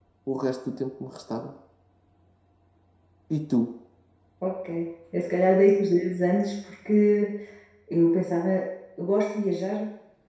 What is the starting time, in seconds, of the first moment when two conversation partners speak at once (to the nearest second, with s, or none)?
none